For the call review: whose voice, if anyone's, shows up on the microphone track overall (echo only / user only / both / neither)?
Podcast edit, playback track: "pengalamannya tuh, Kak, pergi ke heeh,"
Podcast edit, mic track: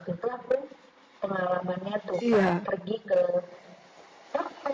both